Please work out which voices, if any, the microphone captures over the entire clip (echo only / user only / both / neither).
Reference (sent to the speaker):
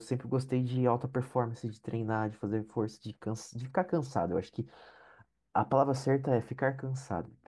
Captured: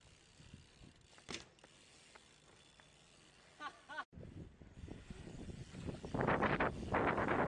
neither